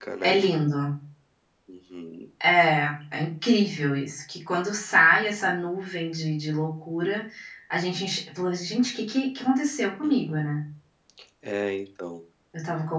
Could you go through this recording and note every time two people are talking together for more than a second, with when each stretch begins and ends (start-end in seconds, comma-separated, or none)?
none